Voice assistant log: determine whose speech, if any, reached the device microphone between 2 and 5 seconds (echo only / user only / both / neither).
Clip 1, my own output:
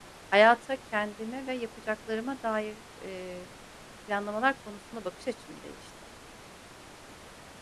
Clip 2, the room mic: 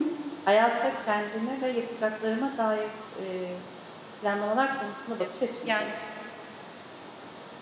echo only